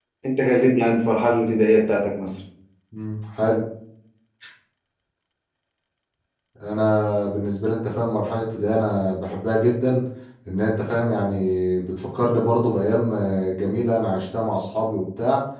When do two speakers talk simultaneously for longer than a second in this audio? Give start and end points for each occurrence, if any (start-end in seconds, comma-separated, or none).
none